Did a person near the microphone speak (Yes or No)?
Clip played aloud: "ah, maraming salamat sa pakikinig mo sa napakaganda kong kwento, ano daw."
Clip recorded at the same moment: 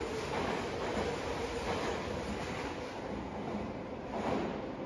No